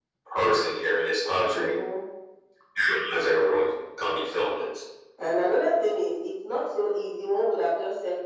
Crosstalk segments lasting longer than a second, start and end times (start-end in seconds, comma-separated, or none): none